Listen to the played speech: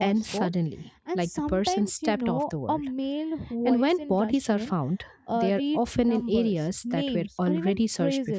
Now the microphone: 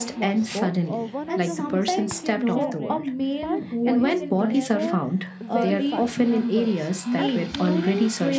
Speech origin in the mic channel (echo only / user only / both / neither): both